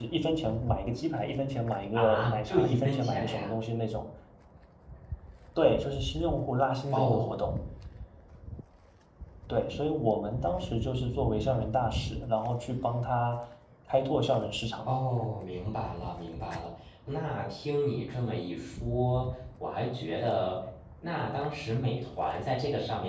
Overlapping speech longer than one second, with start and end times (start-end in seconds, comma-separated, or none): 1.9-3.6